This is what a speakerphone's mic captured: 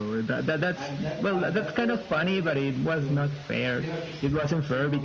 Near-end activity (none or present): present